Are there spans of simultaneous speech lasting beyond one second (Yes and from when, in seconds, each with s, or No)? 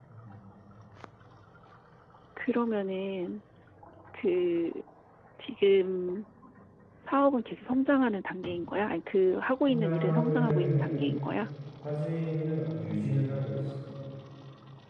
Yes, from 9.7 s